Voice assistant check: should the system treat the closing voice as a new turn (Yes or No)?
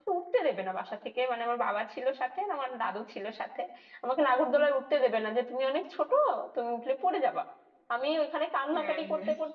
No